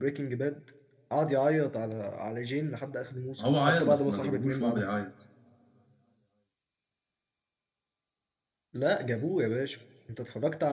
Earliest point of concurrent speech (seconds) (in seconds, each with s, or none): 3.4 s